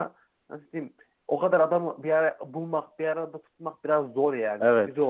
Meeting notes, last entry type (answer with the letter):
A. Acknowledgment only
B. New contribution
B